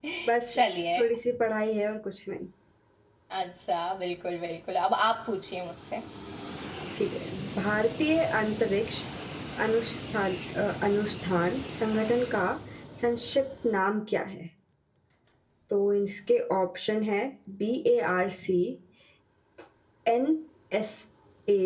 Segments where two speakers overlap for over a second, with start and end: none

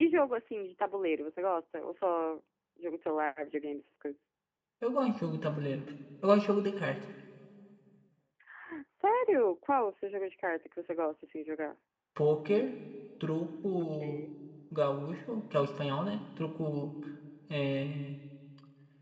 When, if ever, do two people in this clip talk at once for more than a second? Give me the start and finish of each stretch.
none

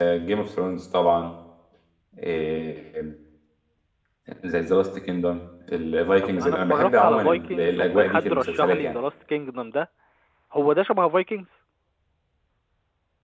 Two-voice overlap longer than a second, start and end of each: 6.2-9.0

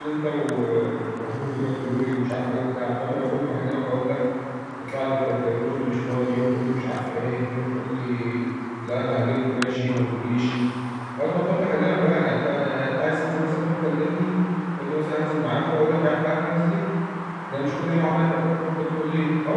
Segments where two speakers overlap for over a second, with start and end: none

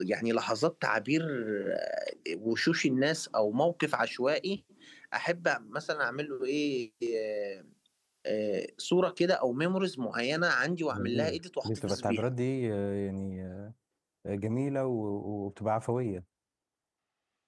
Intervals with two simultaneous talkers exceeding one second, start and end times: 10.9-12.2

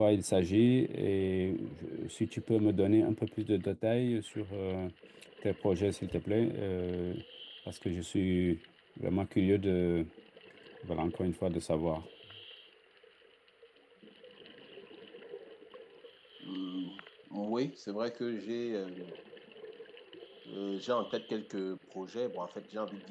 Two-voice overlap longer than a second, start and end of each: none

